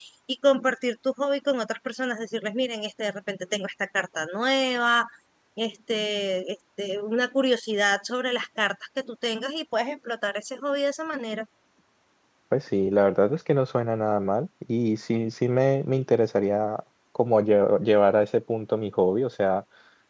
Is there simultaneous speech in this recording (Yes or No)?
No